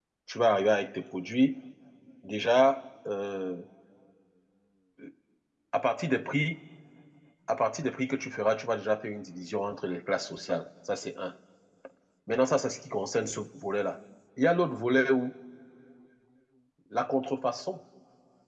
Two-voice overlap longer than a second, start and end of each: none

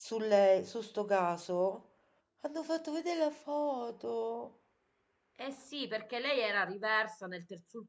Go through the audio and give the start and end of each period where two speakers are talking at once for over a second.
none

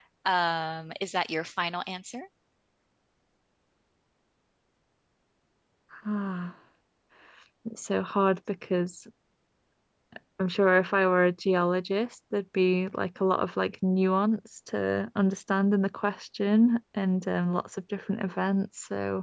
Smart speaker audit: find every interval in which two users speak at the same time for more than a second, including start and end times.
none

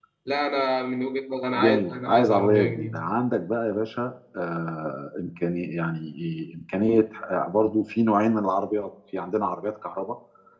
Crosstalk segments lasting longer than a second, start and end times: 1.6-3.0

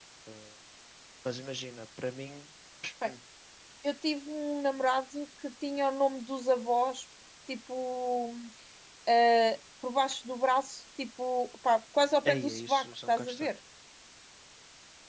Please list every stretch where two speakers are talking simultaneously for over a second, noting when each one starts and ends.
12.2-13.5

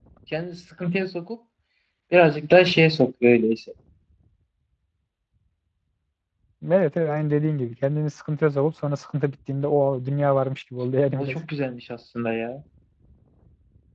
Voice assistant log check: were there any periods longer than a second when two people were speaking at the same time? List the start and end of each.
none

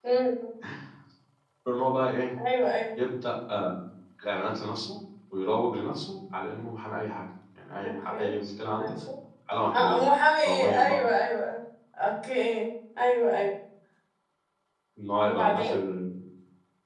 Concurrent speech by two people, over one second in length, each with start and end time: none

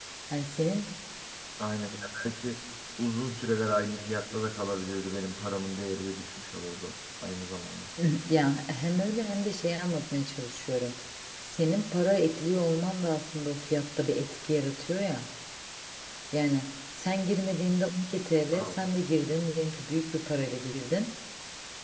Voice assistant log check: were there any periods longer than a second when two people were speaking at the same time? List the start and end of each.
none

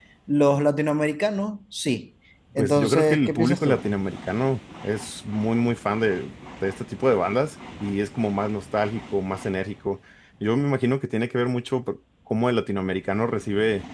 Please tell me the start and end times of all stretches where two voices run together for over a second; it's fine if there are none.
2.6-3.8

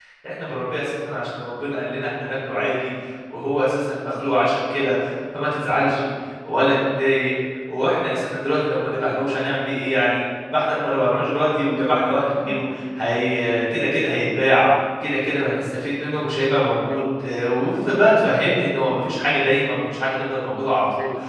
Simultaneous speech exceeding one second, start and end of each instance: none

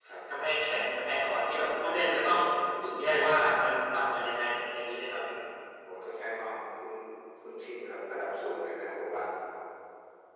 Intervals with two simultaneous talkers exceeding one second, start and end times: none

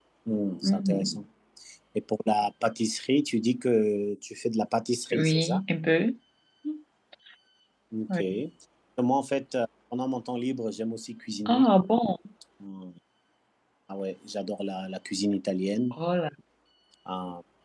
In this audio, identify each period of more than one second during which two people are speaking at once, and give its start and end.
none

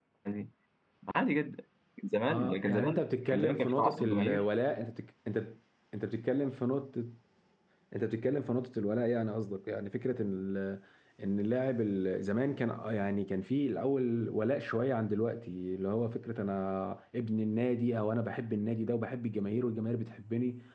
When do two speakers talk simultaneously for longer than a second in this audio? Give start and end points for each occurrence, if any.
2.3-4.4

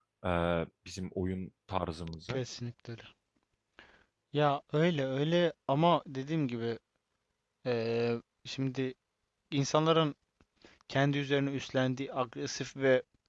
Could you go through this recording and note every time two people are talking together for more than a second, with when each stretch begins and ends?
none

